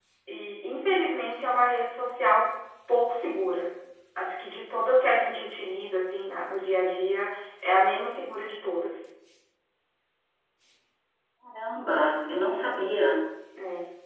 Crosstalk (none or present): none